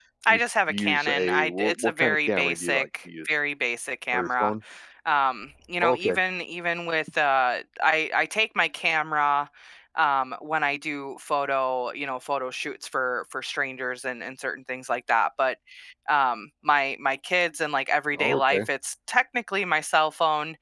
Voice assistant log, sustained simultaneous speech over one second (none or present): present